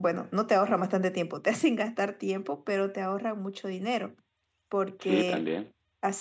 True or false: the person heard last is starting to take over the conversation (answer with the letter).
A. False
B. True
A